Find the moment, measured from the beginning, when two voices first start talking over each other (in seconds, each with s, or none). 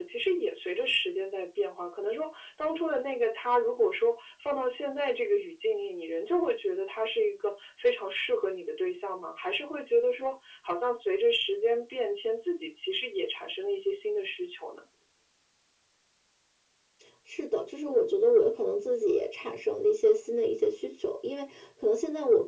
none